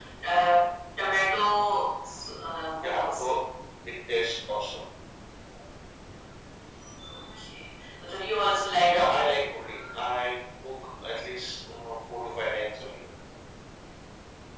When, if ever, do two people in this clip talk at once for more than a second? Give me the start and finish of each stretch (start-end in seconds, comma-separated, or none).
none